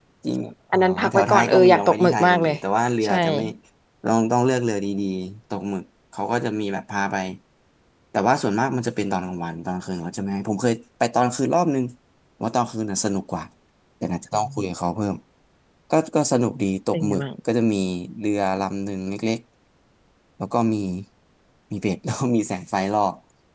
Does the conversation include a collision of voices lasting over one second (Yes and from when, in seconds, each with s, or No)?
Yes, from 0.7 s